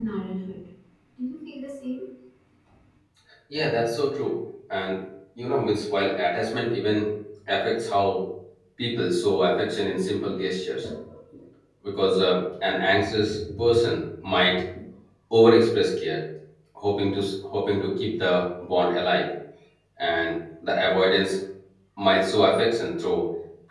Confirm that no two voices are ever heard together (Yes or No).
Yes